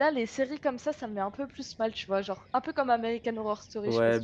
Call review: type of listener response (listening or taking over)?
taking over